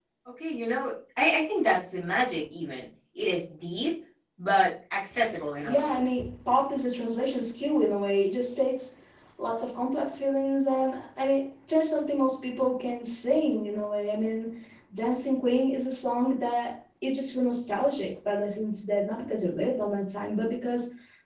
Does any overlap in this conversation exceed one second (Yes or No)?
No